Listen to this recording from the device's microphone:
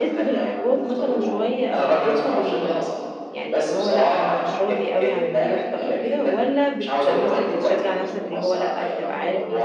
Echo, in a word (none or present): present